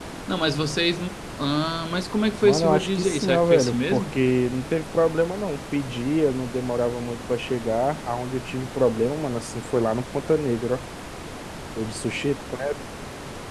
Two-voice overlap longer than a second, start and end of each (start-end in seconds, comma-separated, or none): 2.4-4.2